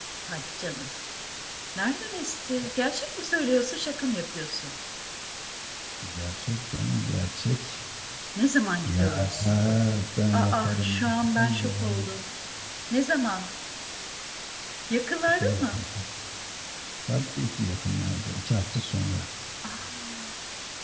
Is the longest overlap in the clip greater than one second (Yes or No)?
Yes